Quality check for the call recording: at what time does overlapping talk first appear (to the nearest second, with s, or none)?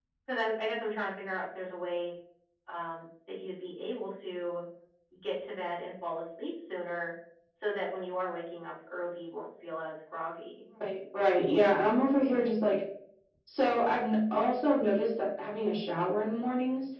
none